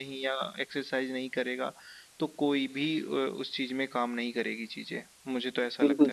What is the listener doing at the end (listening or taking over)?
taking over